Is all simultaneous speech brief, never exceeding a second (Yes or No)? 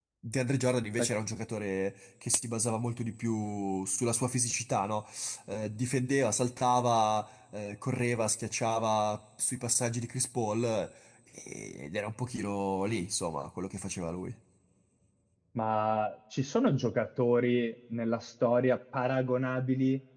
Yes